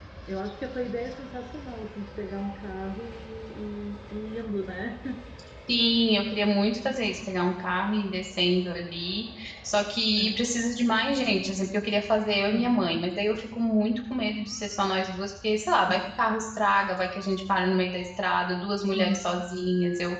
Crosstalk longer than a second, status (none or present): none